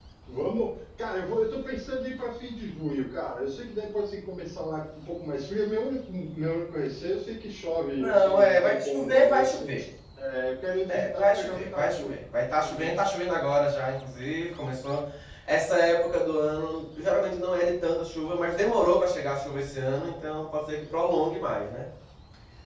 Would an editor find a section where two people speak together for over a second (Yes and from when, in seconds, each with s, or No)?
Yes, from 8.0 s